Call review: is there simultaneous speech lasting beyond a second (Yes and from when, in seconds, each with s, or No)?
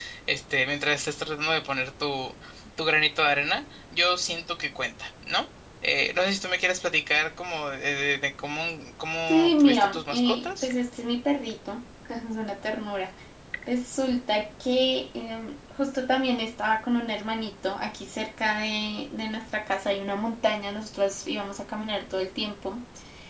Yes, from 9.3 s